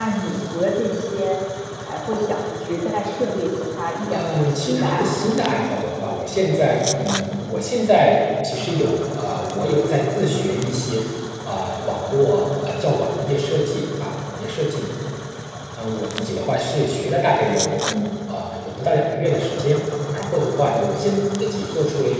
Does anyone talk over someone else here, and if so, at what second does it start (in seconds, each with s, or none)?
4.1 s